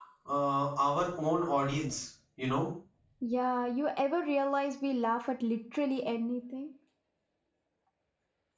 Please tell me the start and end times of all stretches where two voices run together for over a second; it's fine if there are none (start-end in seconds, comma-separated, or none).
none